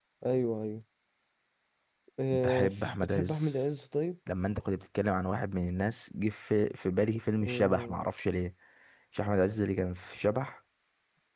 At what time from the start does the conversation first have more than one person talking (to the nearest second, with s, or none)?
2 s